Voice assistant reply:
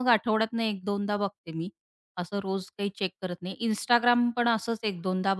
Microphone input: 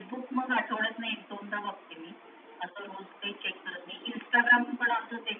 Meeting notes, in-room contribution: none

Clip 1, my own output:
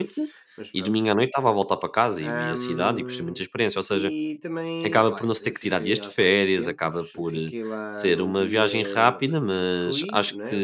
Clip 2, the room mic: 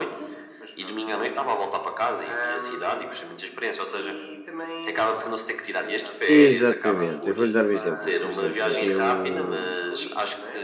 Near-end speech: present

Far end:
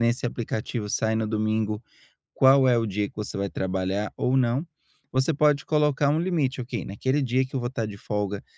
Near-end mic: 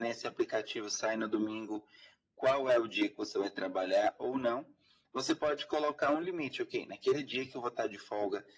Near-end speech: none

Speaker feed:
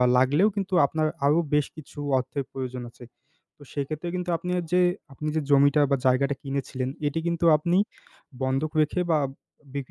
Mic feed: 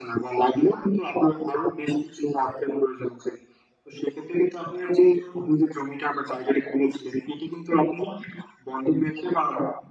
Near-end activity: none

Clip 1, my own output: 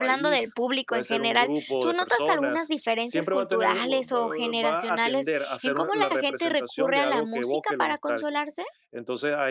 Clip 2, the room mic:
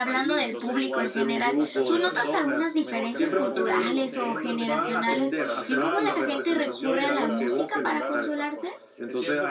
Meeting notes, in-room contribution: present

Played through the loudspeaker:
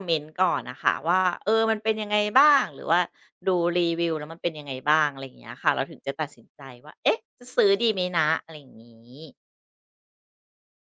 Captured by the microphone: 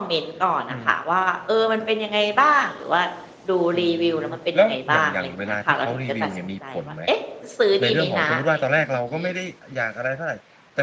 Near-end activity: present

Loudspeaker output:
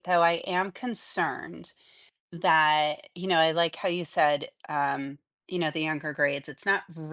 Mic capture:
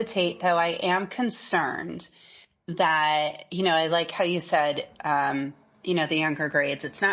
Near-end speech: none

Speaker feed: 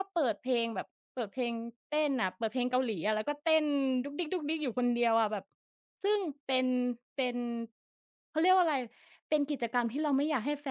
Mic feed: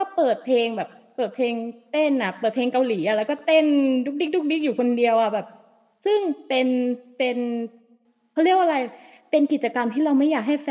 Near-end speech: none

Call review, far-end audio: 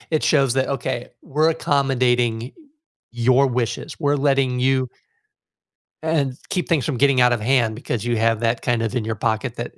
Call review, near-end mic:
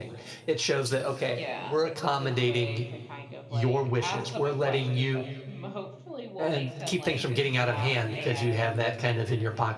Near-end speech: present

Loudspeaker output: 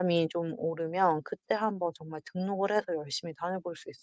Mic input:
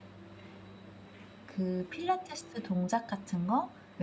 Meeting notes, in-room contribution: present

